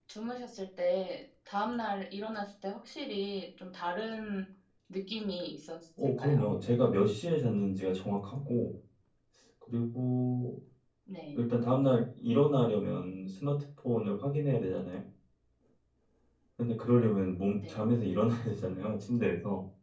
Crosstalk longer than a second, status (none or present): none